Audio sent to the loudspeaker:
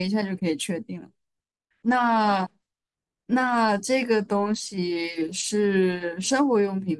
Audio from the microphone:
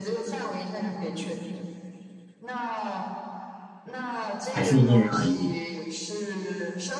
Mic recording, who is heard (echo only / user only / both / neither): both